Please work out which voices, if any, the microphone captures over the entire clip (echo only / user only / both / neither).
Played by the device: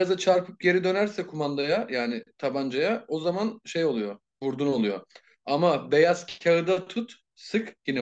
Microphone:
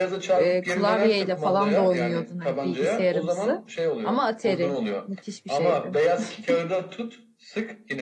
both